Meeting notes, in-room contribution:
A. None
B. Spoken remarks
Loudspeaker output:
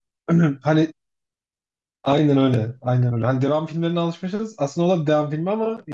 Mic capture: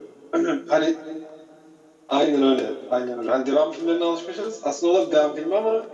A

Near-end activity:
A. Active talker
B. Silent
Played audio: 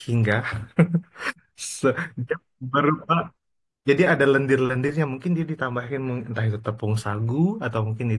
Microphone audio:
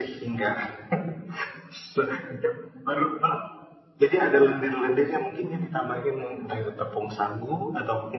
B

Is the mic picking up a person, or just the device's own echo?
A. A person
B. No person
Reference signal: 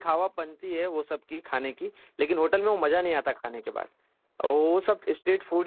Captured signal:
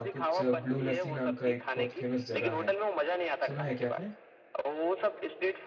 A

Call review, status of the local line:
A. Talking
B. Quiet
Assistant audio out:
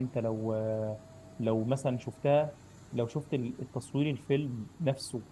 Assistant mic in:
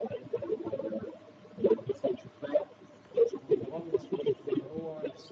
A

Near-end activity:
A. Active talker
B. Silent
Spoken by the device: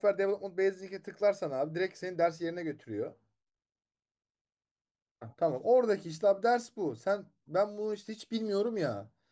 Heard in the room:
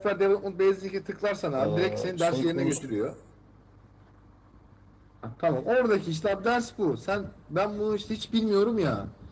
A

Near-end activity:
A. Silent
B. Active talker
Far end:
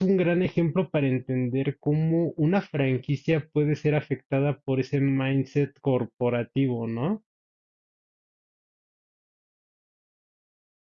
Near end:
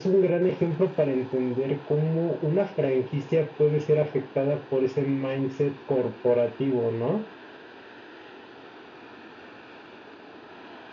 A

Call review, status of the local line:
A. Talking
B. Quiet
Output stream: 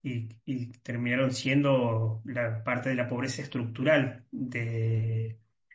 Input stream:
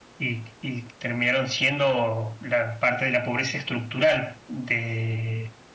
B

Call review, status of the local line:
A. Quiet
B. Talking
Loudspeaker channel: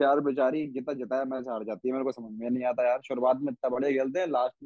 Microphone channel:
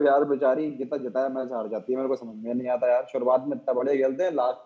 A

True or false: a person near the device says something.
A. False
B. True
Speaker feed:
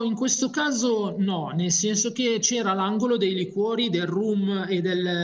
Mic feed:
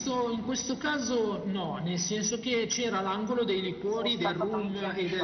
B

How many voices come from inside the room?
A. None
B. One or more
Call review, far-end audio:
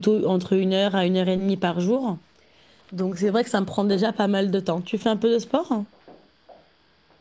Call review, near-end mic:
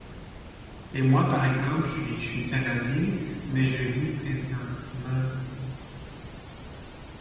B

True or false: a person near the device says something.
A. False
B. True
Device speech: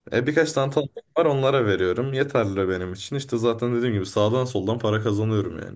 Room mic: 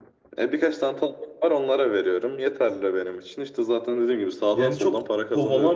B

